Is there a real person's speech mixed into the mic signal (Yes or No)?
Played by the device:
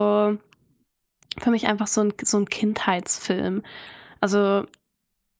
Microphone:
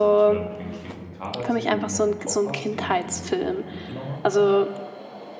Yes